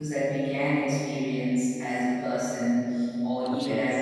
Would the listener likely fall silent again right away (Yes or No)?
Yes